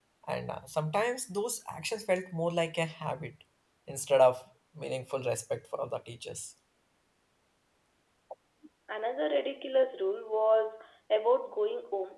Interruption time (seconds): none

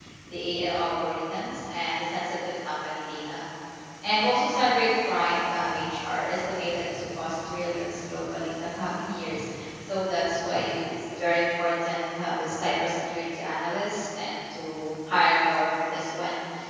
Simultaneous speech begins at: none

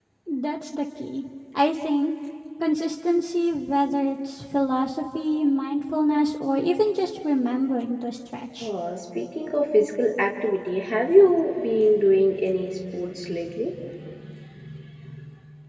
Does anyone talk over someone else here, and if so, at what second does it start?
none

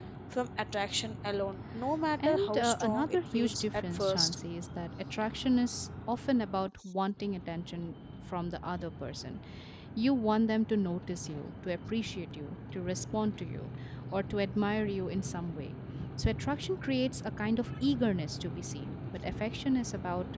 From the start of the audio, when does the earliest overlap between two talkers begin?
2.2 s

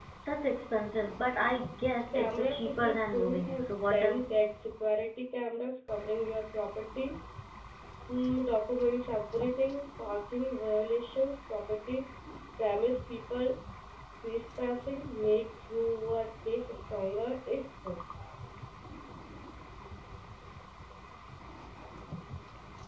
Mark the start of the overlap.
2.1 s

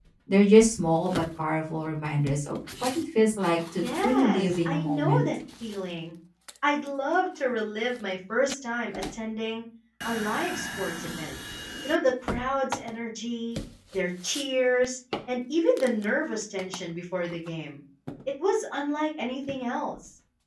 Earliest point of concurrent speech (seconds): 3.8 s

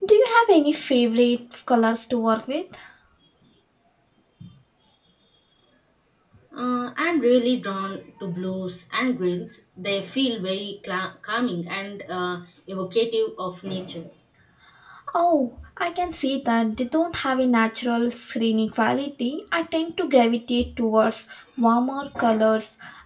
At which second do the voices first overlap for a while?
none

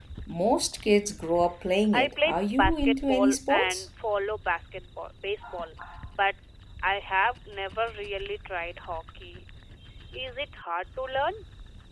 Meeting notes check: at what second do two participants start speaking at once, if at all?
1.9 s

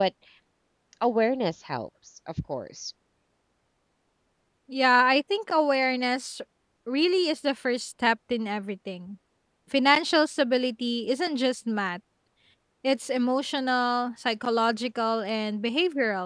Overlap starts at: none

